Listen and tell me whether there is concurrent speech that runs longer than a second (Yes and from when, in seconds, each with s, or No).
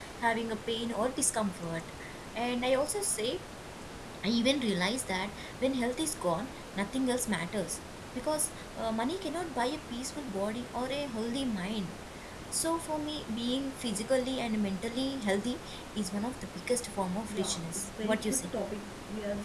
Yes, from 17.3 s